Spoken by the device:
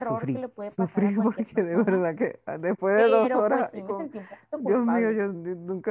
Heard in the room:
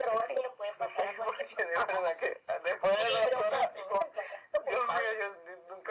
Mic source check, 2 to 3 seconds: echo only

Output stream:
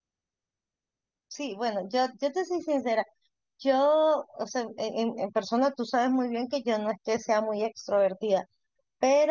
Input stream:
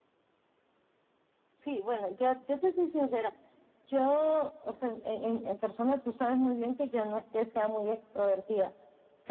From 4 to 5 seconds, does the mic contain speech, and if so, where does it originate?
echo only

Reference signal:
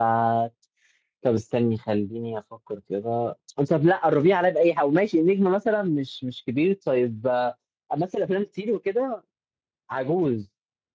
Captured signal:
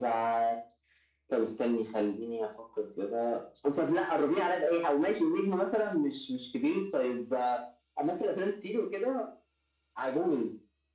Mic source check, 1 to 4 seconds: echo only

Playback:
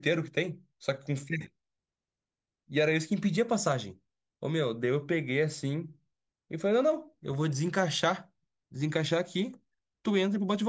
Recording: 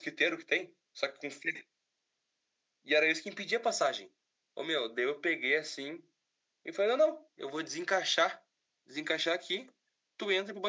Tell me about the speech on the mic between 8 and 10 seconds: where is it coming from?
echo only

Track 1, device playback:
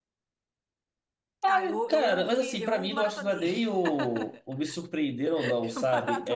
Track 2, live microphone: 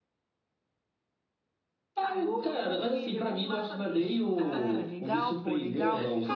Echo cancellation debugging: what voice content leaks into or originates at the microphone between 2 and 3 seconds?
echo only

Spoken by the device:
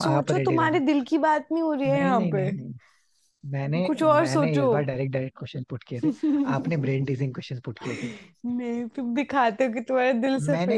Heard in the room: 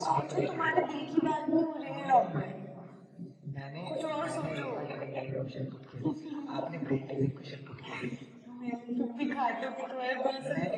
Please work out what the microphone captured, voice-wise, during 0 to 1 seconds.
echo only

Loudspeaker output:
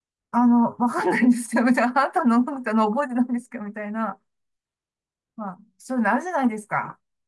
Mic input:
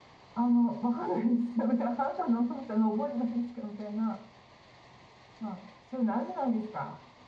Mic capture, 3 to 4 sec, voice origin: echo only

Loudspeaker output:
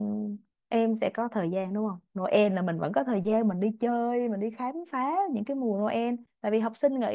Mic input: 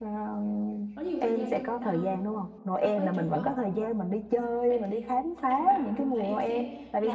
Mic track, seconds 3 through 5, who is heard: both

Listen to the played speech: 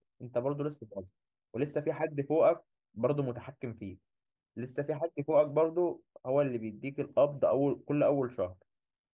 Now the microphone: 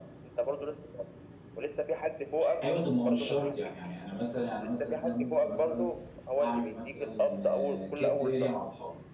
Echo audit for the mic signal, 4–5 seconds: both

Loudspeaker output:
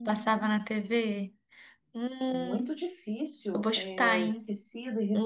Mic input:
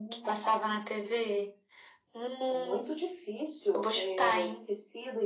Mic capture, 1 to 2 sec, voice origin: echo only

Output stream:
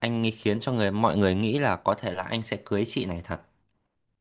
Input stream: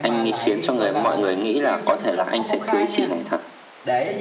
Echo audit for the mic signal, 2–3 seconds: both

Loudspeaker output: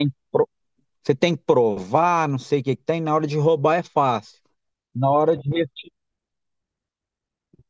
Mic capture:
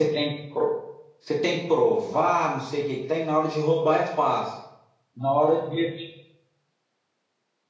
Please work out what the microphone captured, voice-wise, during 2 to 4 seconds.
echo only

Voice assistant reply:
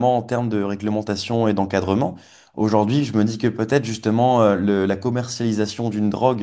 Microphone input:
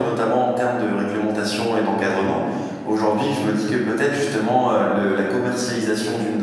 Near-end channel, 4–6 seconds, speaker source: echo only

